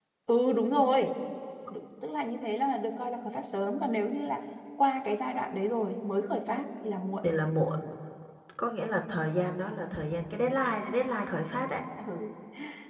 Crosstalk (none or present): none